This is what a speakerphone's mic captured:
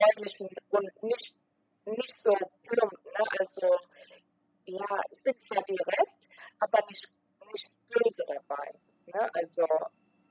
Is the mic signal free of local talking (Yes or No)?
Yes